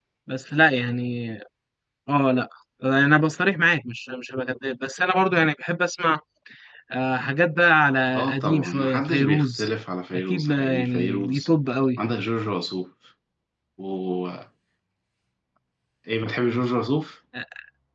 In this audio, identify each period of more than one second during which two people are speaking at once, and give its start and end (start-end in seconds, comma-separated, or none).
8.2-9.7, 10.1-11.5